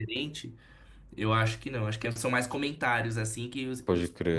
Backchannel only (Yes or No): Yes